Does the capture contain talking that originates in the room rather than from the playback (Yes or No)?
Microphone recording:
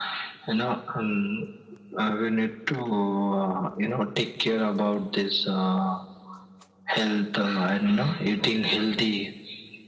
No